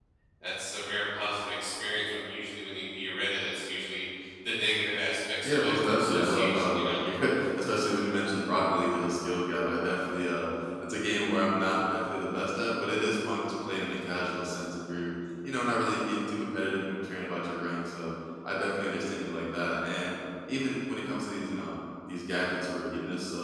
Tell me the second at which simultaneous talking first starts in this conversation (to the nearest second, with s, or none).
5 s